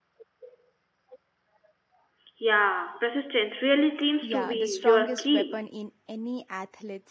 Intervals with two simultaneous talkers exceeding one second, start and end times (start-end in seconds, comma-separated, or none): 4.2-5.6